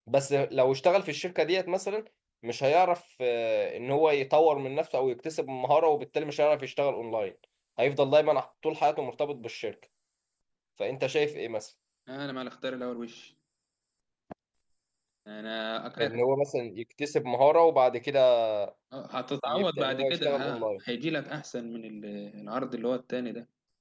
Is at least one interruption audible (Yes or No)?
Yes